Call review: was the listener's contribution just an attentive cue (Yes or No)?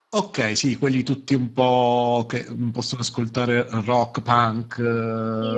No